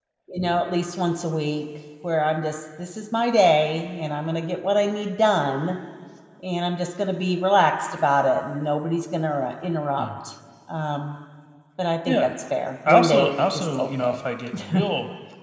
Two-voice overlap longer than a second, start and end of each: 12.9-14.2

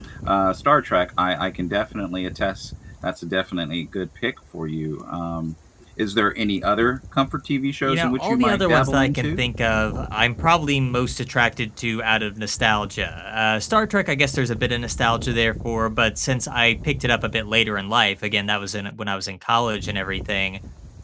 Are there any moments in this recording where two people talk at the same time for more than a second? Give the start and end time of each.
7.8-9.4

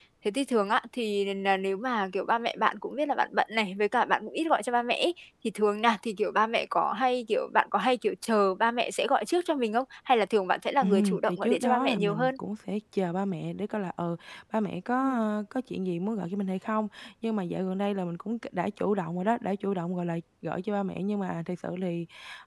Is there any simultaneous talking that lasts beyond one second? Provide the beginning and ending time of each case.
10.8-12.3

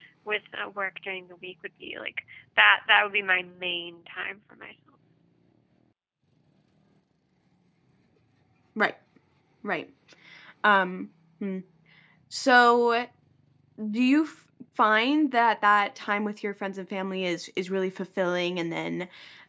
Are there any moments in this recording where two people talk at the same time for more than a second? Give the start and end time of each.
none

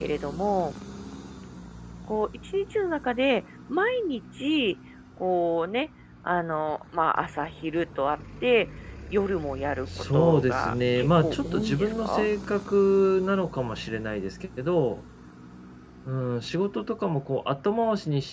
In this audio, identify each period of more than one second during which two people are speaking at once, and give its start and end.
10.1-12.3

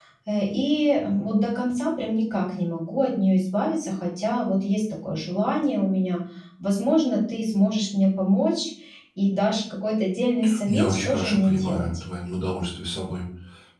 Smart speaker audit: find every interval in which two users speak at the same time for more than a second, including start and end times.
10.7-11.9

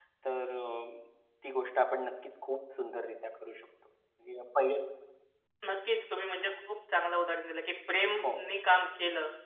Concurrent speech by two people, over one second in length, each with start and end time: none

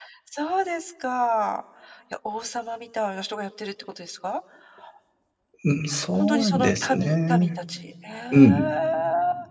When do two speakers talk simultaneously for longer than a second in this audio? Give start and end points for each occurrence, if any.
6.1-7.5

